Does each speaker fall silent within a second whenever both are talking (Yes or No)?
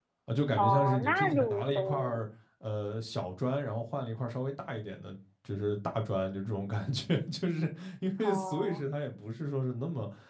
No